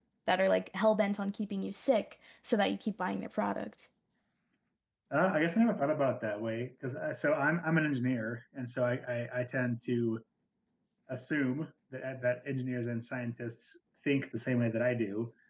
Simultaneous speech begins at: none

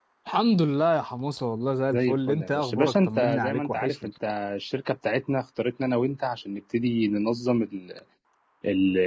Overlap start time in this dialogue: 1.9 s

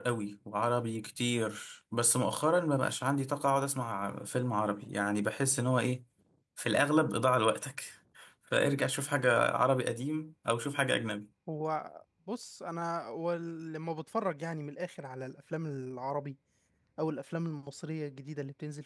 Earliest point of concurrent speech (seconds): none

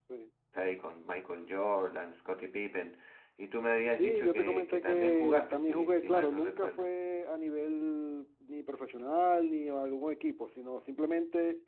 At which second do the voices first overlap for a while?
3.9 s

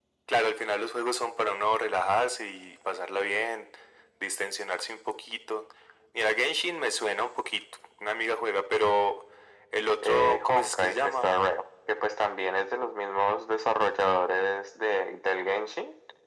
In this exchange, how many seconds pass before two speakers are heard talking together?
10.0 s

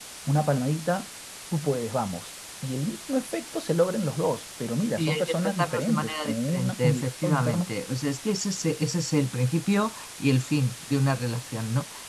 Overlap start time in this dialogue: 5.0 s

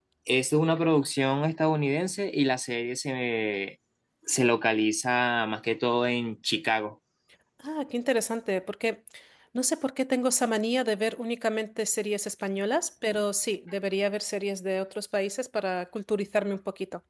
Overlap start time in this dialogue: none

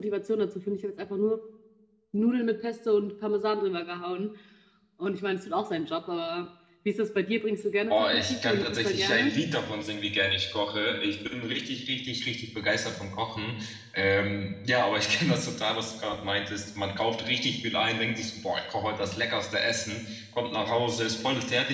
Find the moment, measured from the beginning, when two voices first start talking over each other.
7.9 s

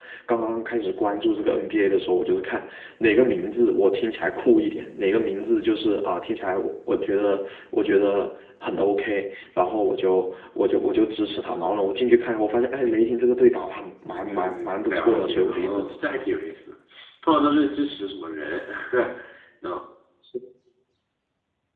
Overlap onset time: 14.1 s

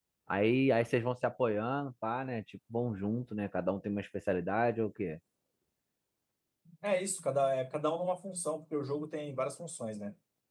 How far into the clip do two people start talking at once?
none

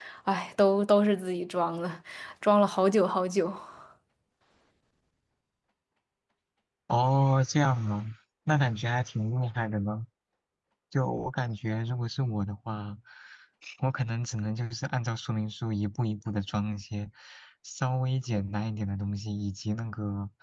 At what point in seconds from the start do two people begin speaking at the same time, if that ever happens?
none

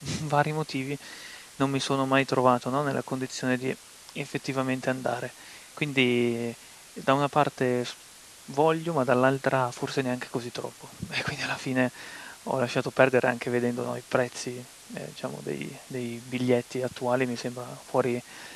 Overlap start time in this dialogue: none

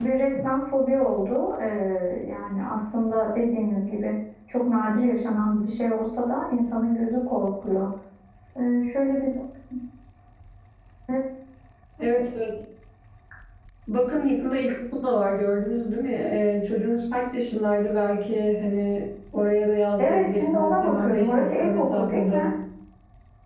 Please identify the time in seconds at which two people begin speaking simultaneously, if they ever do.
20.0 s

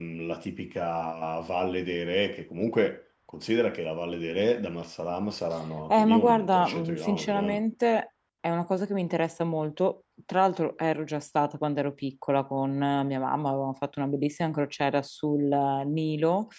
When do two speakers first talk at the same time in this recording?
5.9 s

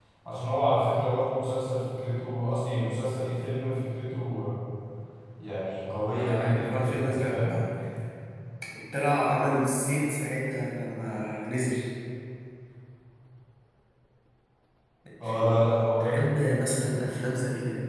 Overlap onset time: 6.1 s

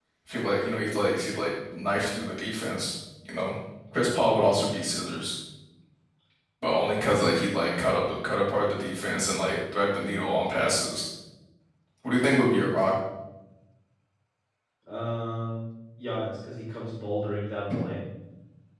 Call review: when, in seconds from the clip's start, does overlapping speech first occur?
none

